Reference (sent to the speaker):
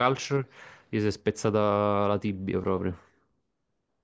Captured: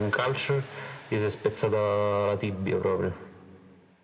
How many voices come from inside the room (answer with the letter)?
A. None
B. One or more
A